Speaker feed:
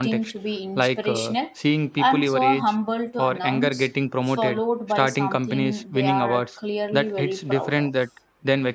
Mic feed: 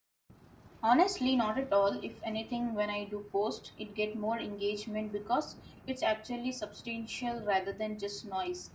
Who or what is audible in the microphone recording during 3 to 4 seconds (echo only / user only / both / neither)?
user only